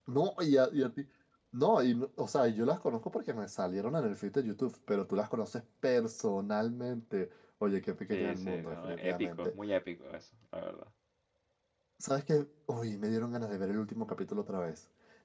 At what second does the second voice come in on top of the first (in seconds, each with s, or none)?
8.1 s